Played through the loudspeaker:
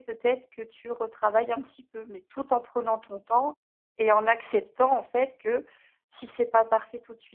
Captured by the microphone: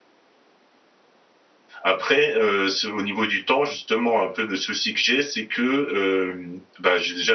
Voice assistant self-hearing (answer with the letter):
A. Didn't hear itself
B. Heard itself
A